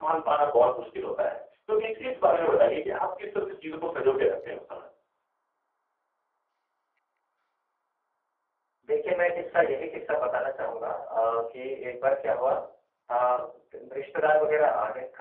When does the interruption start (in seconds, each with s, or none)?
none